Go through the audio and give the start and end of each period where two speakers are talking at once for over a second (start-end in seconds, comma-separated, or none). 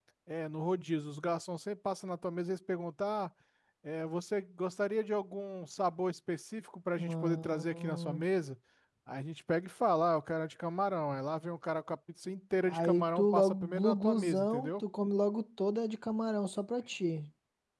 7.0-8.2, 12.7-14.8